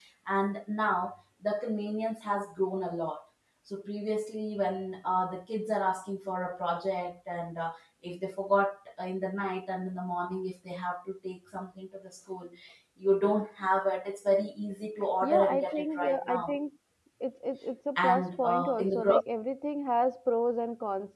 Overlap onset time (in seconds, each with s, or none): 15.2 s